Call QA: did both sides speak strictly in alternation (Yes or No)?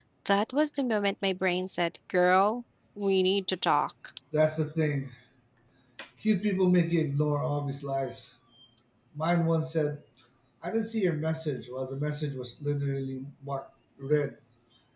Yes